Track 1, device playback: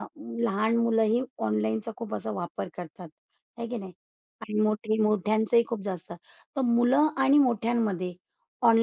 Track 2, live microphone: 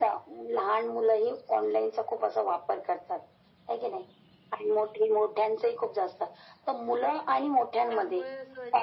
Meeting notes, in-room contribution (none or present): present